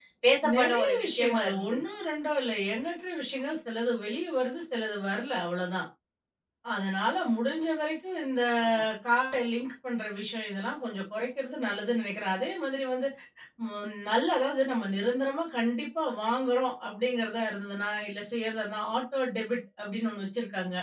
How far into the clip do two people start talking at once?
0.6 s

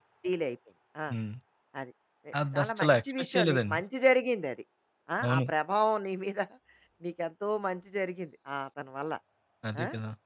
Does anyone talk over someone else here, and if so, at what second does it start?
2.5 s

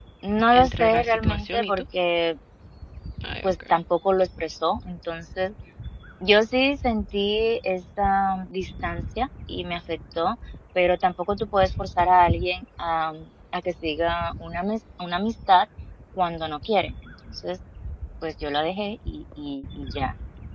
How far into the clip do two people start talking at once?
0.5 s

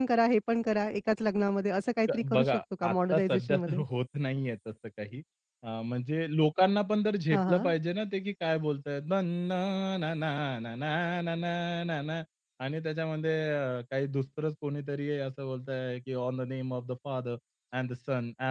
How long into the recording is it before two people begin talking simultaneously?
2.1 s

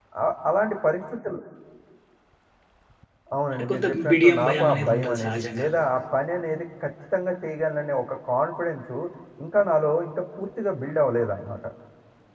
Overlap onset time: 3.5 s

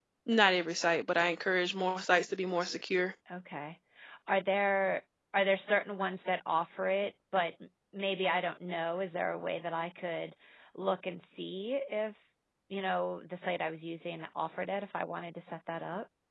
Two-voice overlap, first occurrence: none

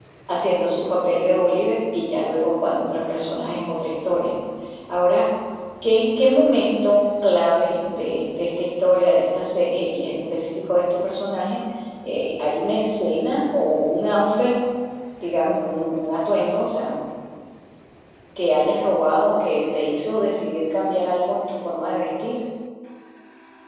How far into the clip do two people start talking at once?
none

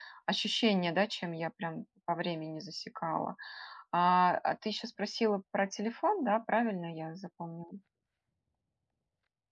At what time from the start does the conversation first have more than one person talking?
none

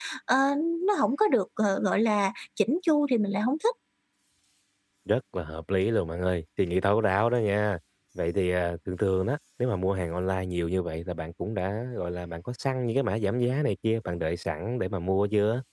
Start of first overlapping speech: none

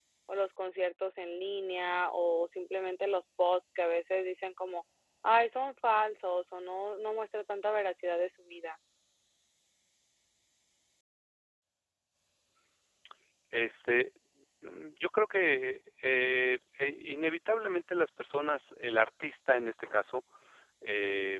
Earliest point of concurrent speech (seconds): none

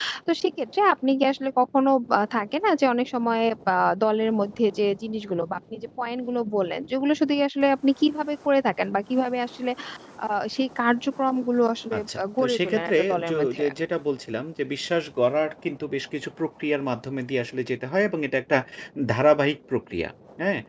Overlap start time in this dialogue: 11.9 s

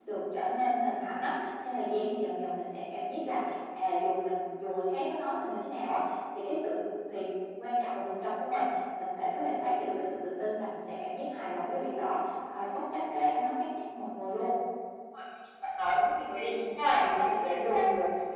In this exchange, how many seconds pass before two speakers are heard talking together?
none

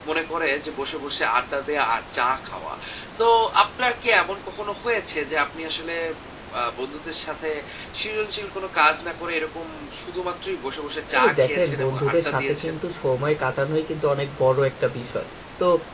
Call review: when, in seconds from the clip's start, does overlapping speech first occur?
11.1 s

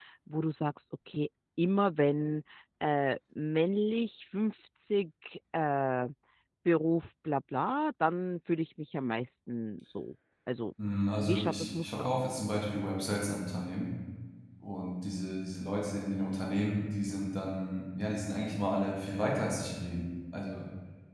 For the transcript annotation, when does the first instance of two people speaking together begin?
11.1 s

